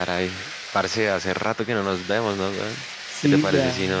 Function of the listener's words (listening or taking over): listening